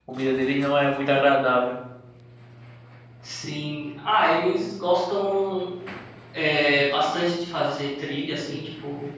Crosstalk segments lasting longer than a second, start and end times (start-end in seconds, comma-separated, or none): none